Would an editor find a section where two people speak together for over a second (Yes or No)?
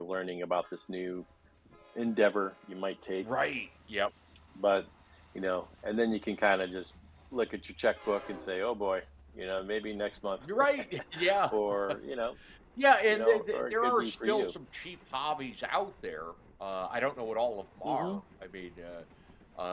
Yes